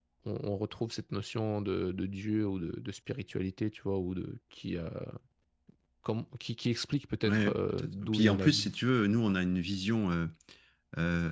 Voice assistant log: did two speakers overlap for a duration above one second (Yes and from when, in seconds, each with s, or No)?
Yes, from 7.2 s